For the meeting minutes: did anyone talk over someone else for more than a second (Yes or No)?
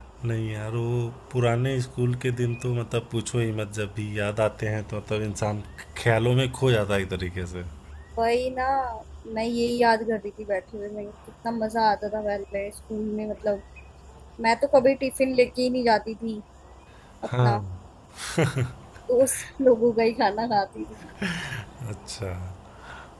No